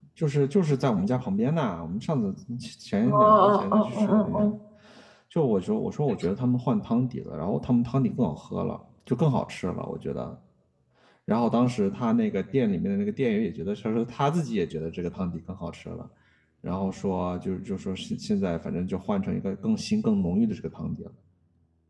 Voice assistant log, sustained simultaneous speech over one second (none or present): present